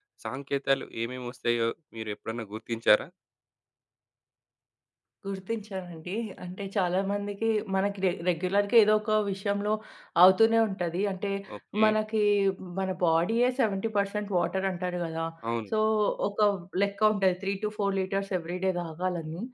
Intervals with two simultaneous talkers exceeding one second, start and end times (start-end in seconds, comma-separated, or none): none